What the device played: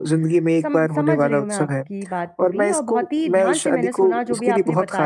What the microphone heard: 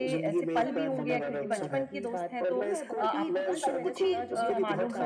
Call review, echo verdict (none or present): present